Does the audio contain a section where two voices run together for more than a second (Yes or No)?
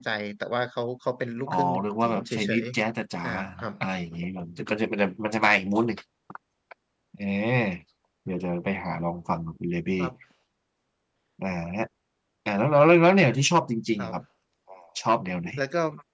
Yes